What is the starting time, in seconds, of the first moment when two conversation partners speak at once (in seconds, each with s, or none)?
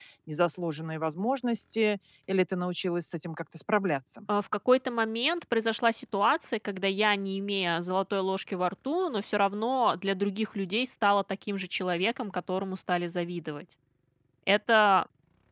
none